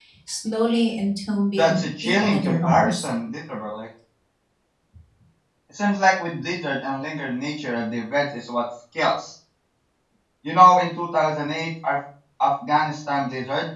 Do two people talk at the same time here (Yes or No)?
Yes